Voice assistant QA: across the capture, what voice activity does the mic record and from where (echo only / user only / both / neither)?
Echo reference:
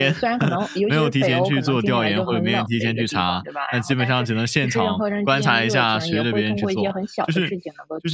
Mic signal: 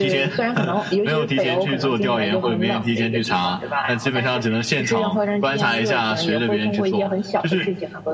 echo only